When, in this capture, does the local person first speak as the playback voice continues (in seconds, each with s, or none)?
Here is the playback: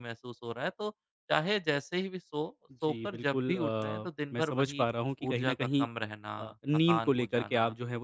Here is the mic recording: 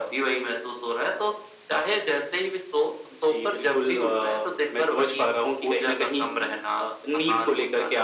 none